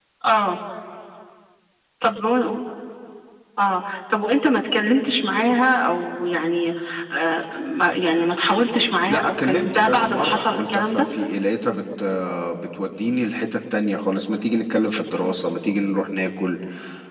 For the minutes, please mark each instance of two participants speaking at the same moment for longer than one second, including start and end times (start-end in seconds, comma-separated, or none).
9.1-11.0